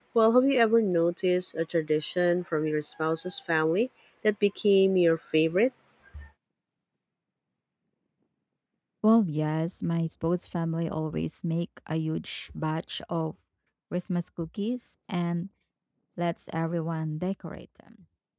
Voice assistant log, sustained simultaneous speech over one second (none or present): none